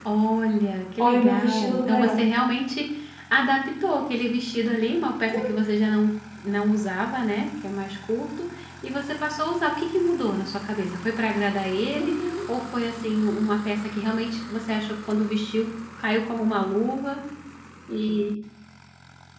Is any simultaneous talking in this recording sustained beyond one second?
Yes, from 1.0 s

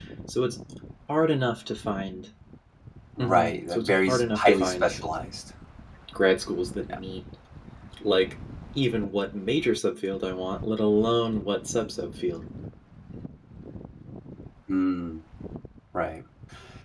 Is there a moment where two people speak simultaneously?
Yes, from 3.2 s

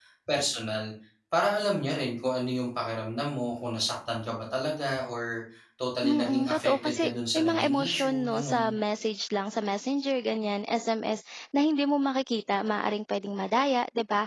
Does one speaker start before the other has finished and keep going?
Yes, from 6.0 s

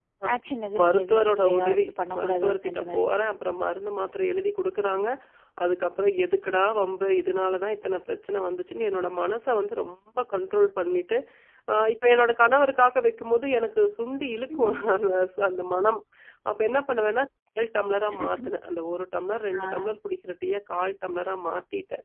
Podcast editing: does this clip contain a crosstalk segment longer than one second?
Yes, from 0.8 s

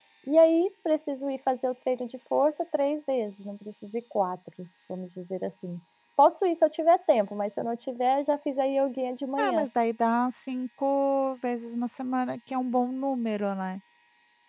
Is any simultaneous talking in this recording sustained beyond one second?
No

